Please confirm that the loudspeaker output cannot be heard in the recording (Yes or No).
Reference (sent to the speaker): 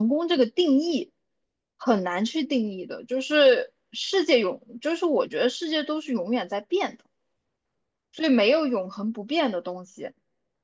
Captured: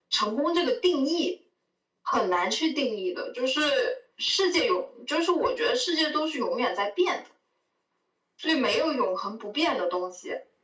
No